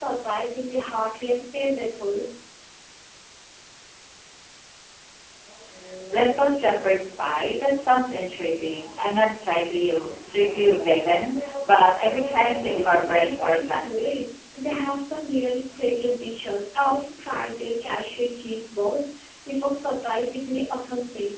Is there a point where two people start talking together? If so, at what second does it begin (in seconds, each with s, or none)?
12.7 s